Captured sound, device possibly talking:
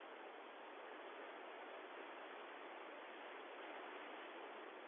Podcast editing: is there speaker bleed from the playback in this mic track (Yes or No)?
No